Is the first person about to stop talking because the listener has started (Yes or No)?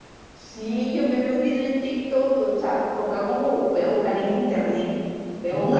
Yes